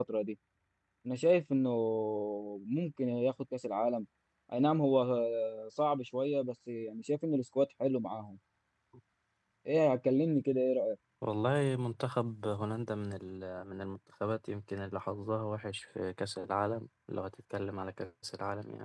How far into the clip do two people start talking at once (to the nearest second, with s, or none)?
none